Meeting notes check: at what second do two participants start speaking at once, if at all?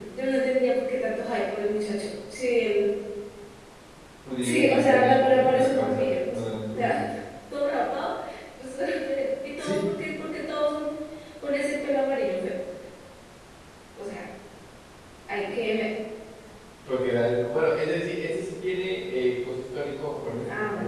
4 s

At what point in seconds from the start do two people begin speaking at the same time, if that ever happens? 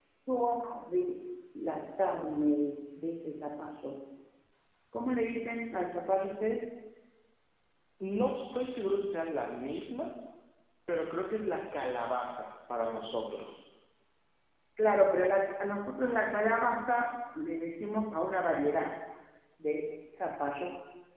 none

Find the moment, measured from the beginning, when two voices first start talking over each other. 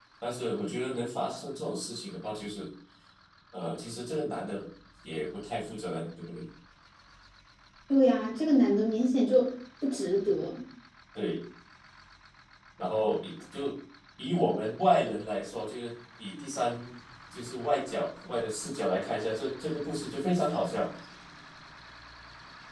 none

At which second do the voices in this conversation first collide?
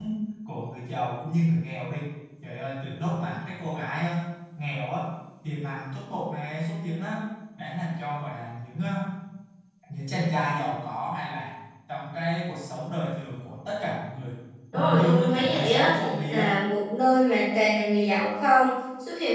15 s

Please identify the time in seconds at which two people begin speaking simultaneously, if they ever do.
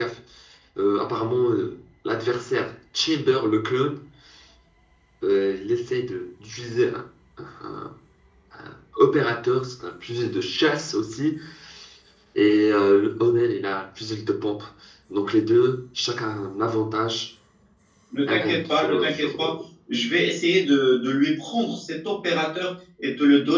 18 s

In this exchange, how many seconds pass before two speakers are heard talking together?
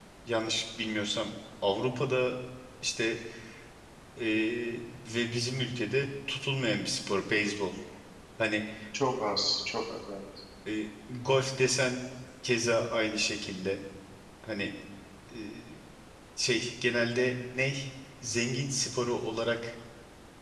none

